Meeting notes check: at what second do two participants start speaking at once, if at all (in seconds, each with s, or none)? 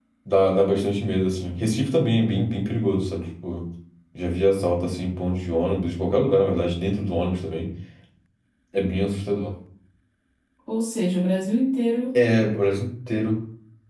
none